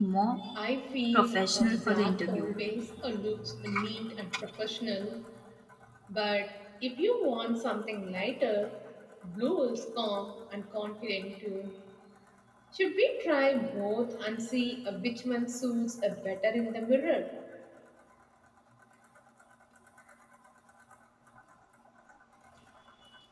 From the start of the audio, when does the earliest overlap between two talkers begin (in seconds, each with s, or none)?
1.1 s